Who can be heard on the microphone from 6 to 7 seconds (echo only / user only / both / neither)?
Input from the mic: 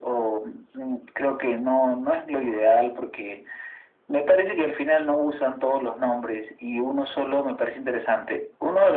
echo only